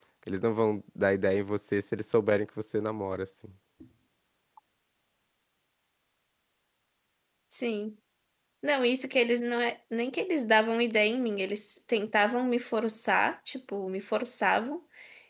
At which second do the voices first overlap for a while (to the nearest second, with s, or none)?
none